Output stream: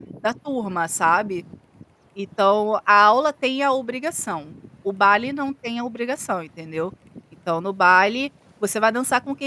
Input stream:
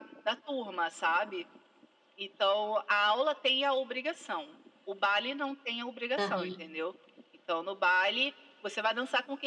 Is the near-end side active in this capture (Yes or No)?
Yes